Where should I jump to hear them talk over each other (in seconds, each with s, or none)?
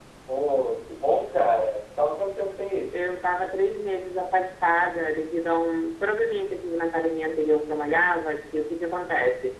none